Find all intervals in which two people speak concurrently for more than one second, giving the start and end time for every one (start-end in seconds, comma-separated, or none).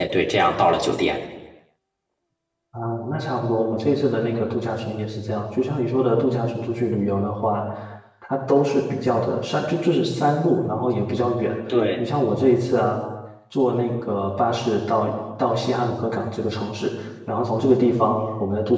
none